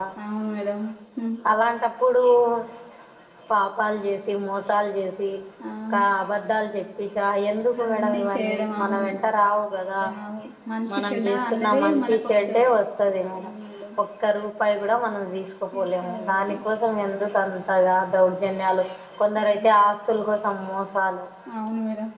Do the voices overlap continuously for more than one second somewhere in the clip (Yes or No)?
Yes